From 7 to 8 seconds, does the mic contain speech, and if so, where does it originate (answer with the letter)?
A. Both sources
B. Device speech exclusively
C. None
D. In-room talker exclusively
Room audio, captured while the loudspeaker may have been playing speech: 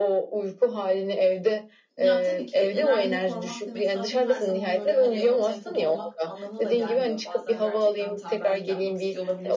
A